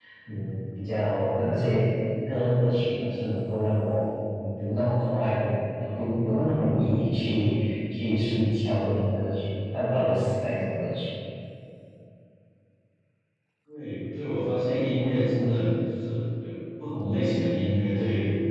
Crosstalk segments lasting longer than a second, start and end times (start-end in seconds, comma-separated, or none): none